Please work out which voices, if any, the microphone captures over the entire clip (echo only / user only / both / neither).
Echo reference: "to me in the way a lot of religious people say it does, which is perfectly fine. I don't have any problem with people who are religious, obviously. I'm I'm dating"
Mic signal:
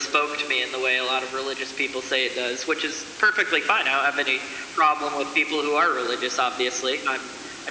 echo only